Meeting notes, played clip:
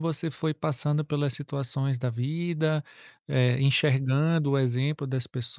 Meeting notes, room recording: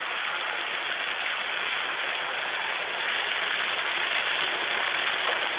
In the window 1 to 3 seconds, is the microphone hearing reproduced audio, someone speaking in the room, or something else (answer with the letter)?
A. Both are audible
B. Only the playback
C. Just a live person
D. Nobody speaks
D